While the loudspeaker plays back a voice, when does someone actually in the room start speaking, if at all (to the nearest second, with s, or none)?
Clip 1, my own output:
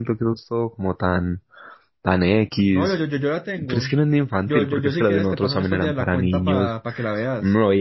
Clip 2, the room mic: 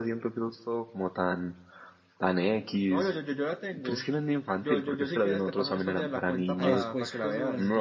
7 s